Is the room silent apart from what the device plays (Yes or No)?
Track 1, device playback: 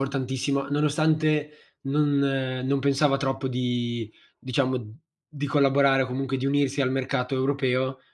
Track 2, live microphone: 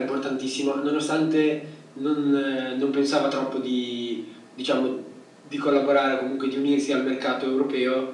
Yes